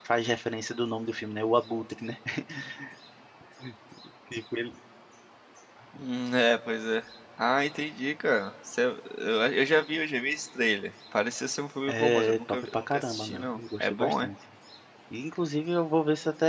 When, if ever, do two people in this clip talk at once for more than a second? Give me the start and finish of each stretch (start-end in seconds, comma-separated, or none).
11.9-14.3